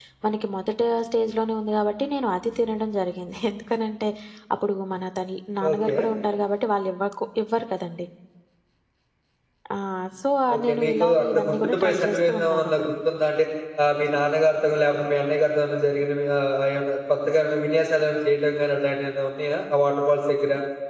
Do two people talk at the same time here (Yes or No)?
Yes